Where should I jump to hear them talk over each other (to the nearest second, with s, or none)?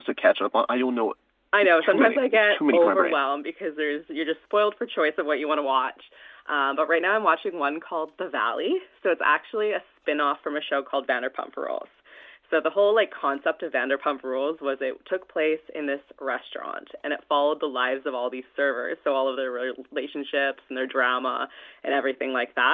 2 s